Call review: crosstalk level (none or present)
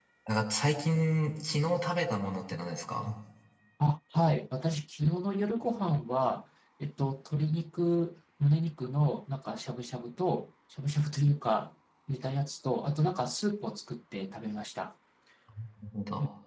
none